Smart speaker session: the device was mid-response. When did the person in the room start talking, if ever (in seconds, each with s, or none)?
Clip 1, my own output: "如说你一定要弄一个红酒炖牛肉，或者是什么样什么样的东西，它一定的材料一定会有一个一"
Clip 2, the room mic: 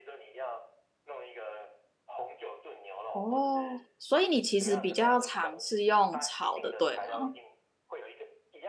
3.1 s